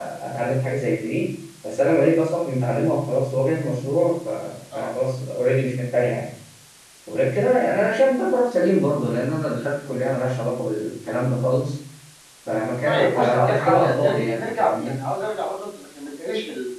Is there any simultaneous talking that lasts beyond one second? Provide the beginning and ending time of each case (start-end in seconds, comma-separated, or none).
12.8-15.0